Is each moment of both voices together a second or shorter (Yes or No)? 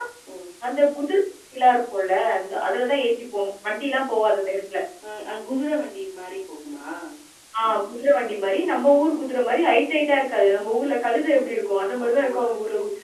Yes